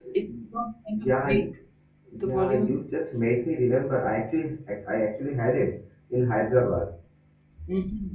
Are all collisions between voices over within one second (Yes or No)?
Yes